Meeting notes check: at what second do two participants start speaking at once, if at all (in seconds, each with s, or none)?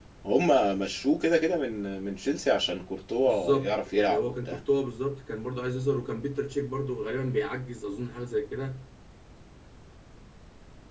3.2 s